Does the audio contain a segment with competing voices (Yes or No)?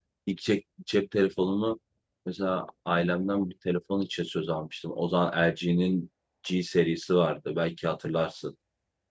No